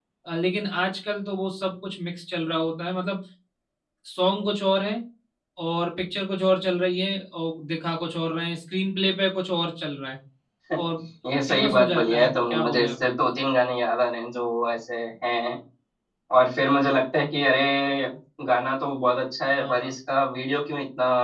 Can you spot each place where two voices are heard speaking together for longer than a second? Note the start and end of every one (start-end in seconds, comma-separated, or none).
11.5-13.0